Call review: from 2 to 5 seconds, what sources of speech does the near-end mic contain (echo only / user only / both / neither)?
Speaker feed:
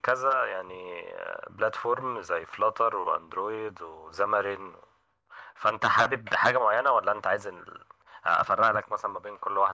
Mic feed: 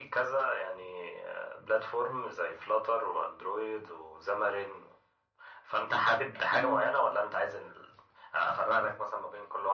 echo only